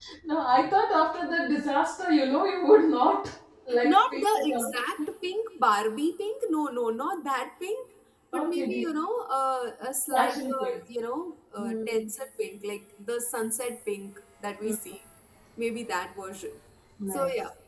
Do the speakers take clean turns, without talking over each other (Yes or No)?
No